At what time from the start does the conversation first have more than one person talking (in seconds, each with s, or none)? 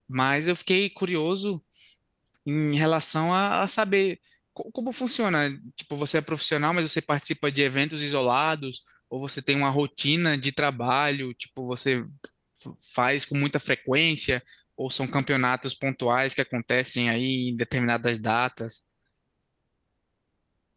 none